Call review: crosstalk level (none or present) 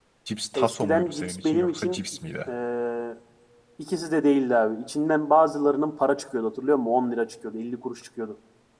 present